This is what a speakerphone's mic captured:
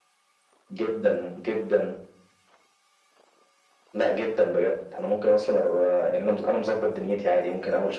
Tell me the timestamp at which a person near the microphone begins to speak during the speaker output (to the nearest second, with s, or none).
none